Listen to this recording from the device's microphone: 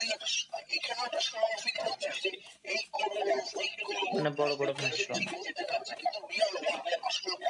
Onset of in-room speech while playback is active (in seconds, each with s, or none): 4.1 s